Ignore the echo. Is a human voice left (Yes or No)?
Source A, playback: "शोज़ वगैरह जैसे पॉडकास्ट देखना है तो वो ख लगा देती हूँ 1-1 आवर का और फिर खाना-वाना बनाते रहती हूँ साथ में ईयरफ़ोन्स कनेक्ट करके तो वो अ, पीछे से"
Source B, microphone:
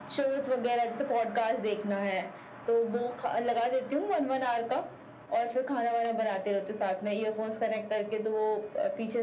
No